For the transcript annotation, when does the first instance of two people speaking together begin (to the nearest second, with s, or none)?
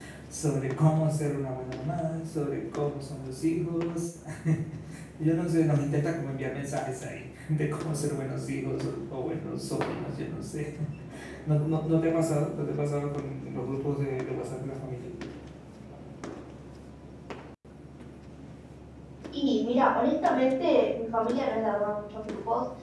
none